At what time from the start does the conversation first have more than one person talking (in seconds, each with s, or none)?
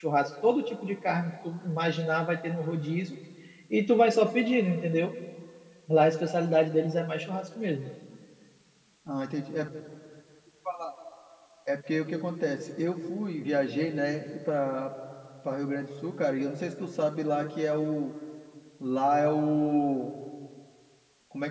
none